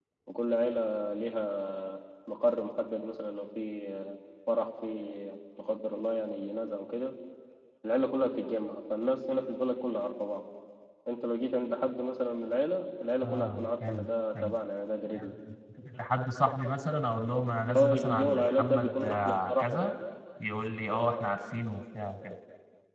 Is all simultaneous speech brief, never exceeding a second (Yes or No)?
No